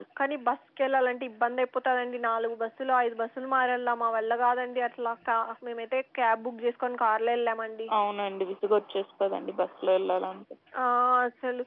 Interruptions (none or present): none